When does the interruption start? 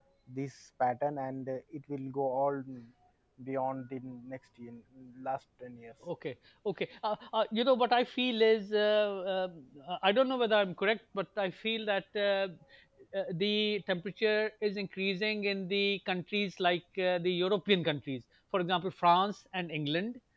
none

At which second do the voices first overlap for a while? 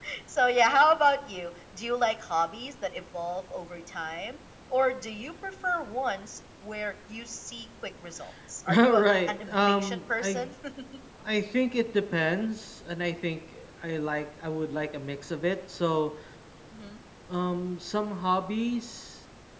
9 s

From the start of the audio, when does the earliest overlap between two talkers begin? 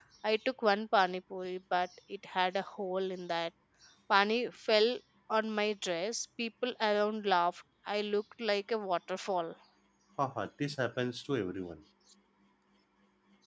none

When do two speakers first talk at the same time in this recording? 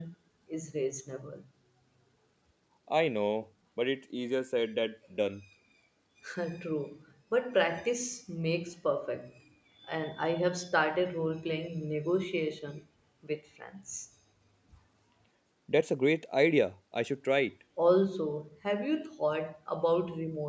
none

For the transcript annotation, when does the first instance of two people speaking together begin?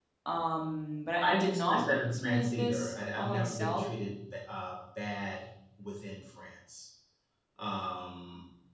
1 s

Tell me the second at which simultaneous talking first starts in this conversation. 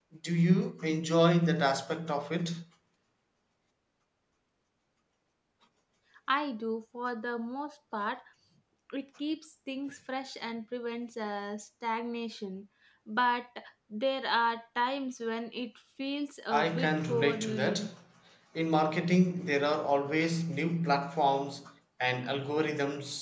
17 s

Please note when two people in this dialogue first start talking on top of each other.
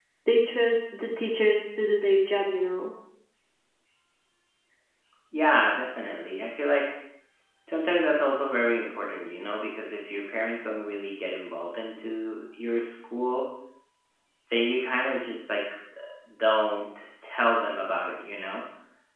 none

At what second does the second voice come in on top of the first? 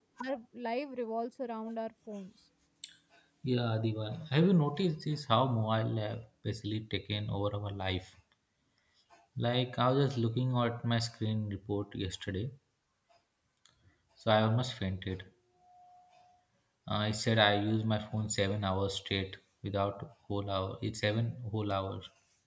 none

